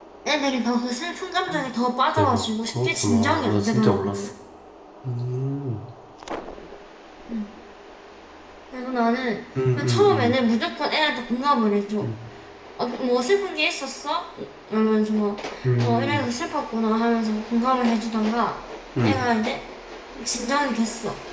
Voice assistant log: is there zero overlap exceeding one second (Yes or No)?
No